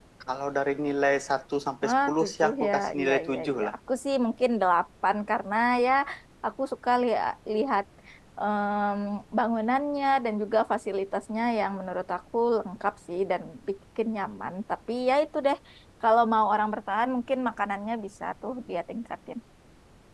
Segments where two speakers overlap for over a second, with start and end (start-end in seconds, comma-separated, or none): 1.8-3.7